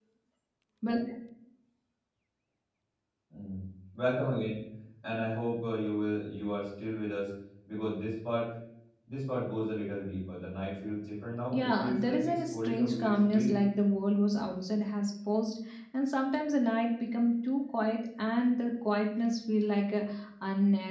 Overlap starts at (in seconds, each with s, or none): 11.5 s